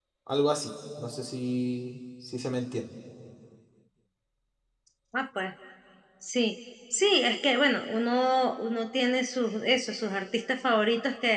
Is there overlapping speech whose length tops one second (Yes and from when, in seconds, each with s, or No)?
No